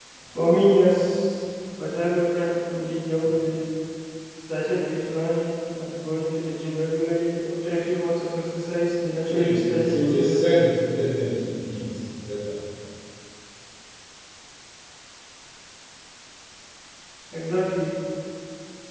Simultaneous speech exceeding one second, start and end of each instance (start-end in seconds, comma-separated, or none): 9.3-10.5